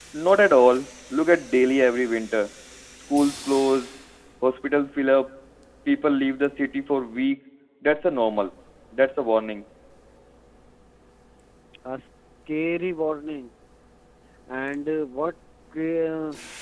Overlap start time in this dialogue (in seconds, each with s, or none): none